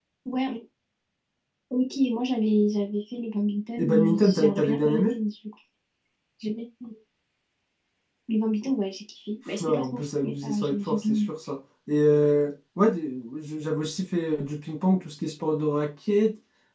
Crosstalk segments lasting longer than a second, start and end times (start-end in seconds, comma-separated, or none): 3.8-5.2, 9.6-11.3